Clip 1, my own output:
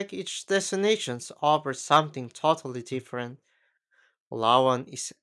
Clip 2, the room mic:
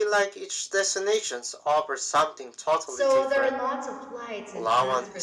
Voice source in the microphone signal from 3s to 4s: both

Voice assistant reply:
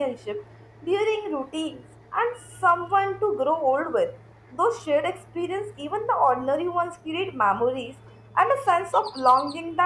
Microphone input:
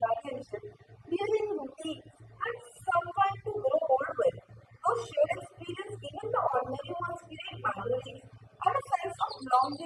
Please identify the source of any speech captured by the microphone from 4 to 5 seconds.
echo only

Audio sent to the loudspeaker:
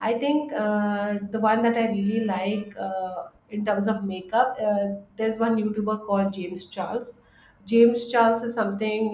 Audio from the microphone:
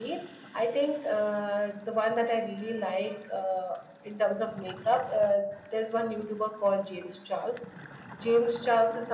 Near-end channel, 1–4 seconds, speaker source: echo only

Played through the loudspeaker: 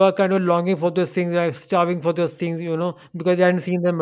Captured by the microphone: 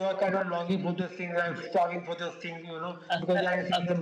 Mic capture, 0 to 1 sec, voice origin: echo only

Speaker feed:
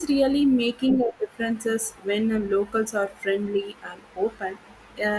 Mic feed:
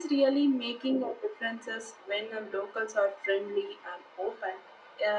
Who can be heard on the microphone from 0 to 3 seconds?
echo only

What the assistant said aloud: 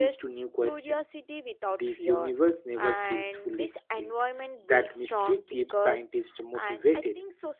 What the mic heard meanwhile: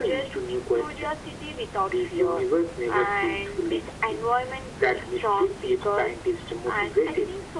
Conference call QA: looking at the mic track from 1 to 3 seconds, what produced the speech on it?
echo only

